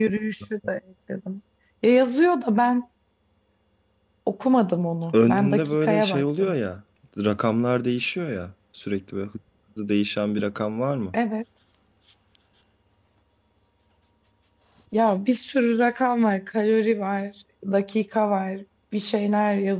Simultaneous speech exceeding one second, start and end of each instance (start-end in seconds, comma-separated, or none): 5.1-6.5